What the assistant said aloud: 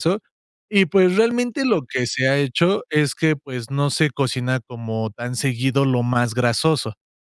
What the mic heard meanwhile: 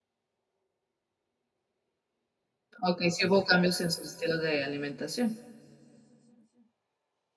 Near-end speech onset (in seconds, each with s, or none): 2.8 s